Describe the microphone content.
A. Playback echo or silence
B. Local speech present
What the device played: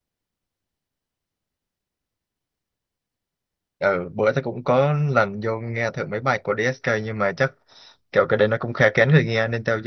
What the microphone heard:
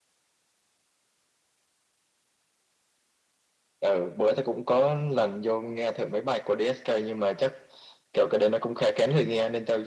A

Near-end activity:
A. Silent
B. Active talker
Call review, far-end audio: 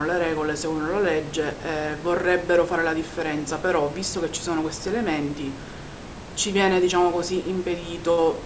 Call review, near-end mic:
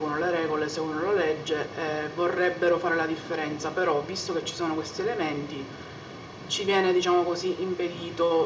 A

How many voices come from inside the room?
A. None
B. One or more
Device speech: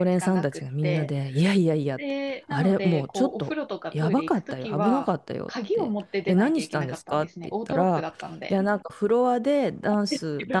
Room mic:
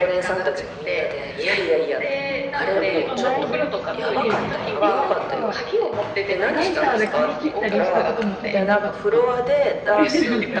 B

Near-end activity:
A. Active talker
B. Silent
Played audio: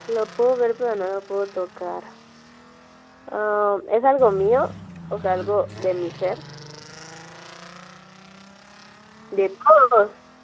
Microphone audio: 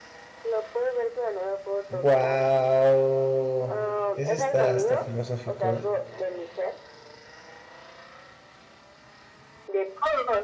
A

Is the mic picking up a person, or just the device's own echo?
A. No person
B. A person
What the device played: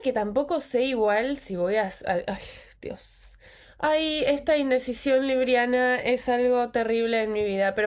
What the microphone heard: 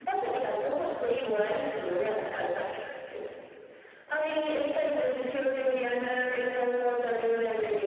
A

